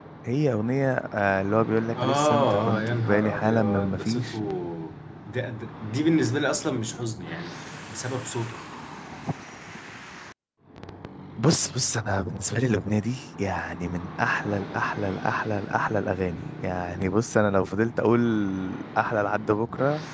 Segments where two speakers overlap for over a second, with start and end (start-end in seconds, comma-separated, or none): 2.0-4.4